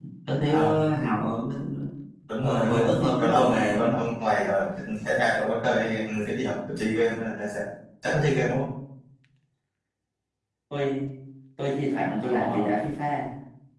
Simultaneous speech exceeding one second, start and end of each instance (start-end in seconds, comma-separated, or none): 2.4-4.0